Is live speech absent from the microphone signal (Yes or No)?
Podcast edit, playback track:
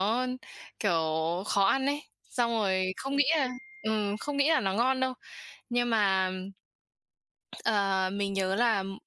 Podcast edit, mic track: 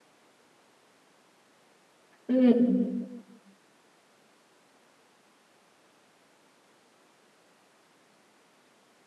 No